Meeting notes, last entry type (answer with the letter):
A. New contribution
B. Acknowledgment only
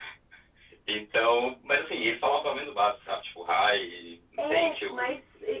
A